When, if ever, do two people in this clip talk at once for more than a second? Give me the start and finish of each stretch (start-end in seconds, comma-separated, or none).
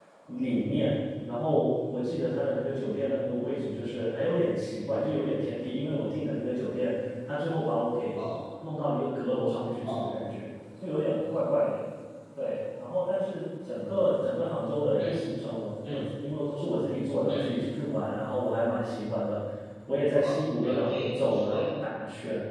20.1-21.7